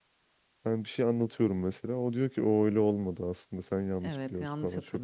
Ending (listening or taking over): taking over